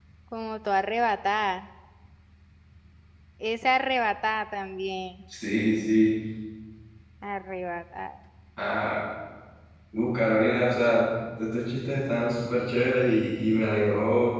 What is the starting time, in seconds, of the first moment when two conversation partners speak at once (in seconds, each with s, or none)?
none